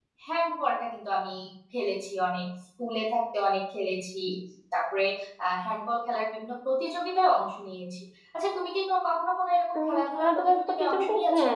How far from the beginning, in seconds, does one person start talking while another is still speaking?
9.8 s

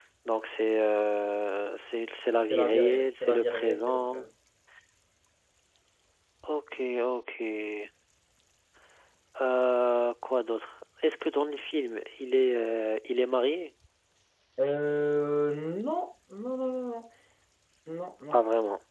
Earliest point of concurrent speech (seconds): 2.5 s

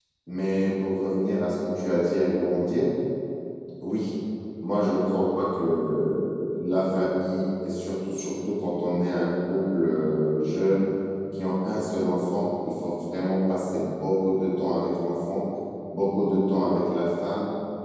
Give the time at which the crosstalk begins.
none

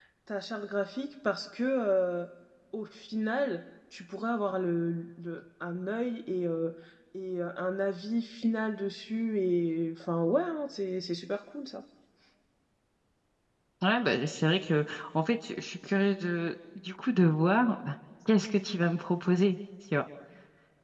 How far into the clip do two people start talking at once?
none

